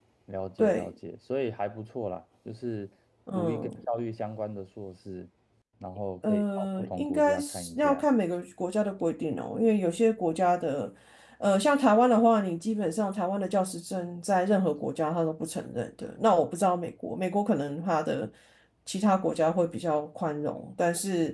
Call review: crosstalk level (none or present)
present